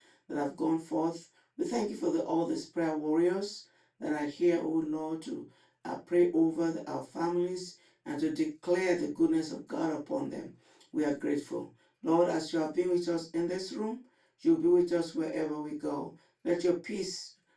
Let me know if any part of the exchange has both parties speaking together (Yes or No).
No